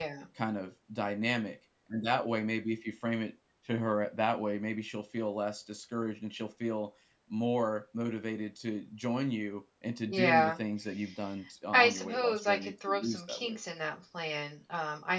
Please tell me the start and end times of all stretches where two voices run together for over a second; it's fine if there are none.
11.7-13.6

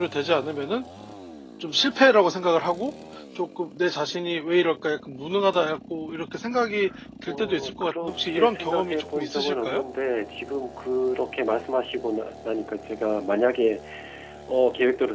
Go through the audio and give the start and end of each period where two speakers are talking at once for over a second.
7.3-9.8

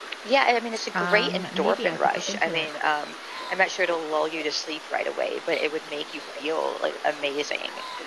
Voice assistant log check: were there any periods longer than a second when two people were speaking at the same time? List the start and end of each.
0.9-2.7

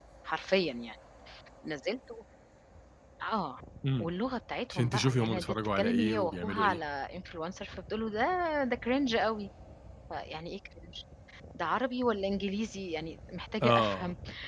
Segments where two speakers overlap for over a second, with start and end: 4.7-6.8

